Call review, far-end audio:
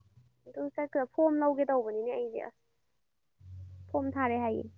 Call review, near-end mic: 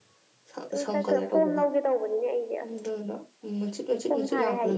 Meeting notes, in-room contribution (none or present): present